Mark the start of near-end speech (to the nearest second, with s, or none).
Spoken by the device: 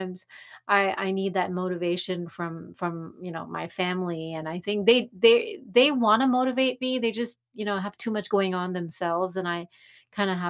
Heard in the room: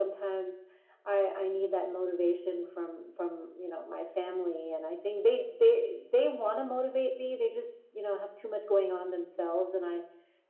none